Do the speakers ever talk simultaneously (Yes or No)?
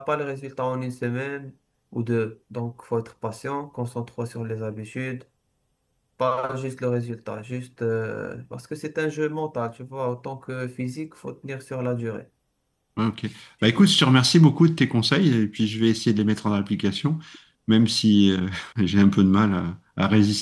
No